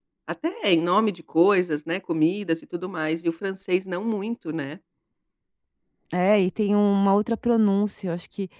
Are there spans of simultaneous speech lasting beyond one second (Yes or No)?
No